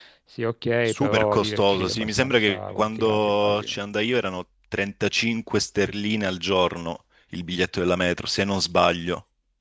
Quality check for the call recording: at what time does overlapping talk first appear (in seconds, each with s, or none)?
0.8 s